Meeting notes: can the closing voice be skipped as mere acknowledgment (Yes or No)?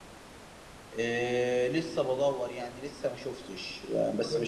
Yes